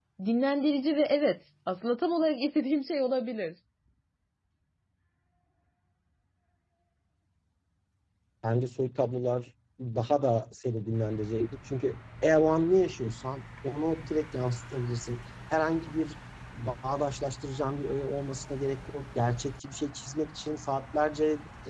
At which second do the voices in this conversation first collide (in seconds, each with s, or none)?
none